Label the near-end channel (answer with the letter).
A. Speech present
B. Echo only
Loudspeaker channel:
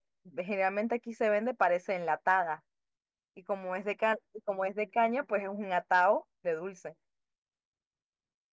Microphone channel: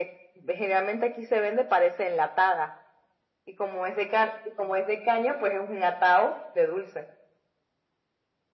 B